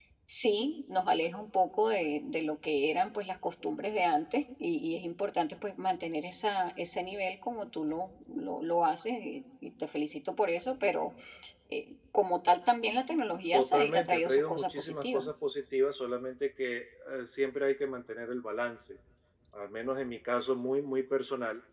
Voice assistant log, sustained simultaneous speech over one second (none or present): present